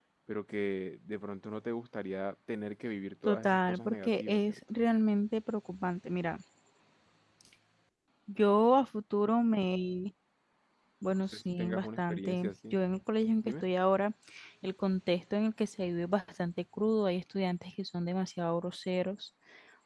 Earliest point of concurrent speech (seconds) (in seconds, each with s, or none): 3.2 s